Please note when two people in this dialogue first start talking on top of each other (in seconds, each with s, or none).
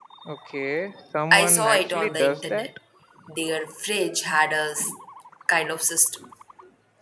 1.3 s